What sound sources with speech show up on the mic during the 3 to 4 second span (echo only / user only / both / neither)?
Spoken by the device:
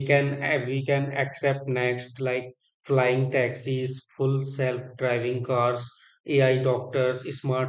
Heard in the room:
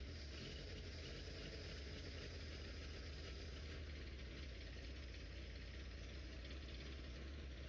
neither